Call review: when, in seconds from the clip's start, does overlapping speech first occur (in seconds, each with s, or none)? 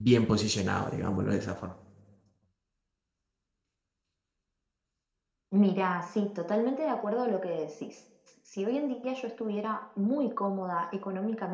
none